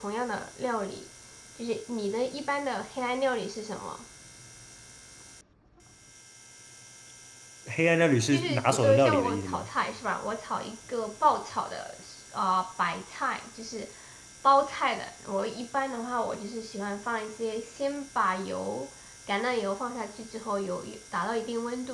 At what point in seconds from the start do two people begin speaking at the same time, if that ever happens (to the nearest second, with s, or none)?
8 s